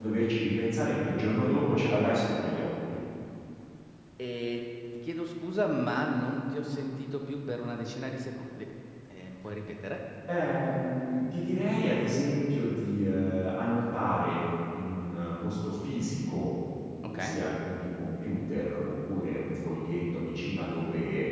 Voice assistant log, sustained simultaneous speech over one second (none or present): none